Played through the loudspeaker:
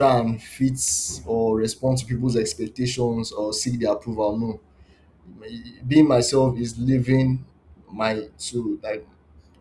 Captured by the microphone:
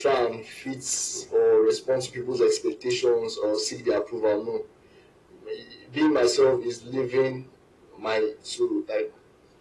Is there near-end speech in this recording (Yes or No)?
No